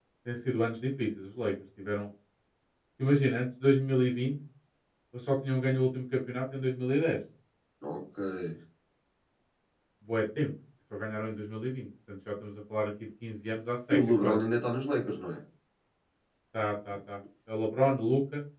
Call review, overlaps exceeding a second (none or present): none